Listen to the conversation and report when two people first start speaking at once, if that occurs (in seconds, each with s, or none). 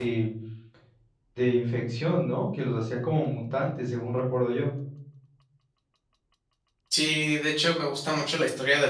none